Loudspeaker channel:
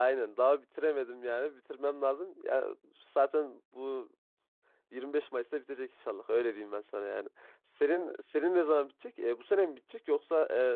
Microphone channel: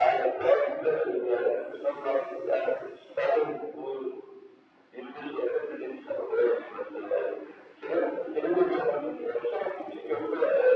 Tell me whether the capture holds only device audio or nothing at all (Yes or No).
Yes